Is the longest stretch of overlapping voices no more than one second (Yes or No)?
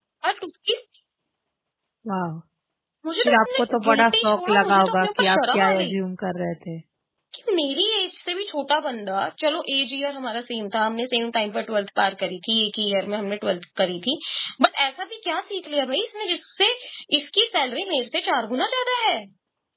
No